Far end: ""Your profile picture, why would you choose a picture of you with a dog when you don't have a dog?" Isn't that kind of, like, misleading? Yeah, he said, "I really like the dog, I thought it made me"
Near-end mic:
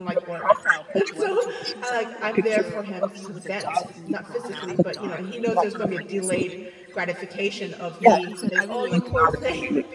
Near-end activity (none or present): present